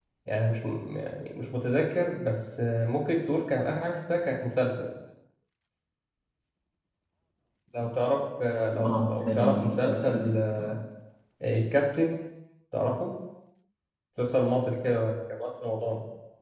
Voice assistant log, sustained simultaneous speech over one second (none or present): present